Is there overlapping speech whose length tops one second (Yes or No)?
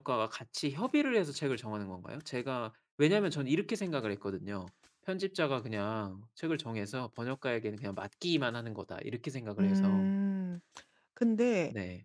No